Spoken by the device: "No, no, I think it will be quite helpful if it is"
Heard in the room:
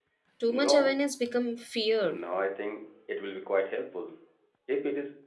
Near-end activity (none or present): present